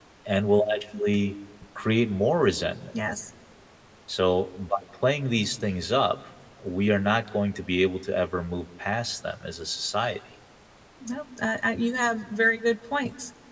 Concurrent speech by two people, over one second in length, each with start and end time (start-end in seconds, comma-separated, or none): none